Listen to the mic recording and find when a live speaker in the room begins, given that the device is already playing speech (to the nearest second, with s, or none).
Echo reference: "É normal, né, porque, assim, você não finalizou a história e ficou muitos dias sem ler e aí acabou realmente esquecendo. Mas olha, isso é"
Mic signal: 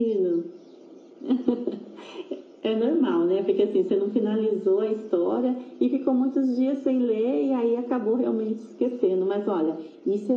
none